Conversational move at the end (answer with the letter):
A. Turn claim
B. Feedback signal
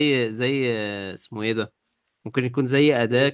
B